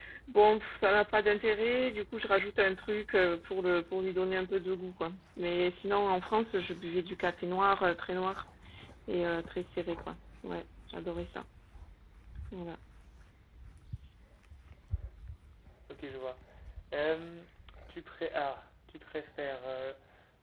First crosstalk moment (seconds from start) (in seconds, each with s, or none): none